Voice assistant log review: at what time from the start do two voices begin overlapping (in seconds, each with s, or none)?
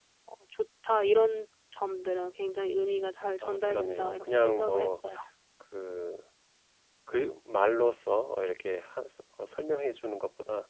3.4 s